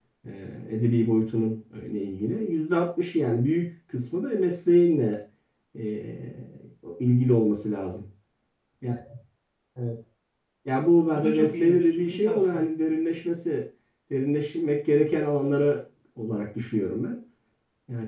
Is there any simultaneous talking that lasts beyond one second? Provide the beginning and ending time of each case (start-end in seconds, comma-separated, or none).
11.1-12.7